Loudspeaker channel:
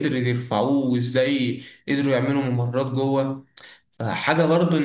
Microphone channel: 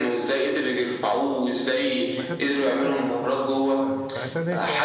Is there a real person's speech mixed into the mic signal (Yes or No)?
Yes